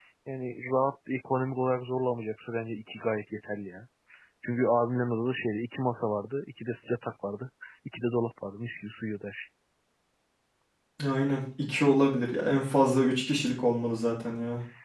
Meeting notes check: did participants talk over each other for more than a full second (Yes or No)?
No